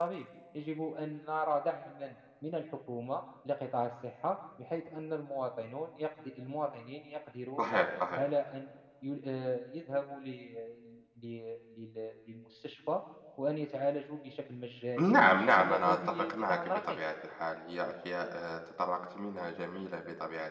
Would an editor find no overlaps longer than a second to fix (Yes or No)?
No